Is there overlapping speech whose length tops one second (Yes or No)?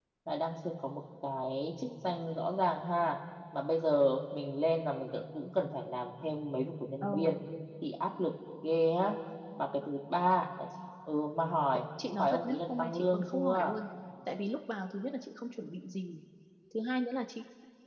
Yes